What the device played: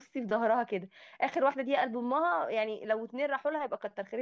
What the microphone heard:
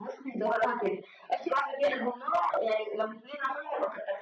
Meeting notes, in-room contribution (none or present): none